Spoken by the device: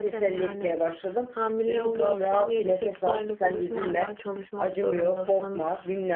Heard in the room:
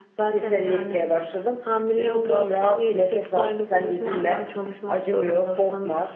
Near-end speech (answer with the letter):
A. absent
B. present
A